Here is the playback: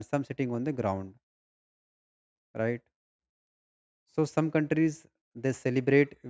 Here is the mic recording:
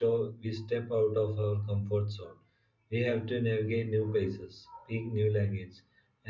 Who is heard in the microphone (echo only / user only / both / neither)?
user only